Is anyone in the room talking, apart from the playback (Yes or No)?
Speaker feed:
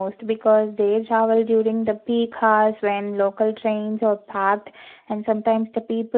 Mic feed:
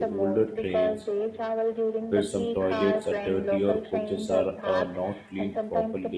Yes